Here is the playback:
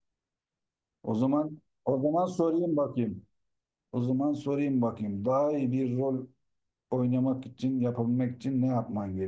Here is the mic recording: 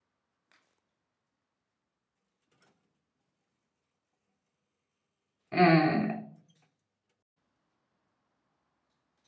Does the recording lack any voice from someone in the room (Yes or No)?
No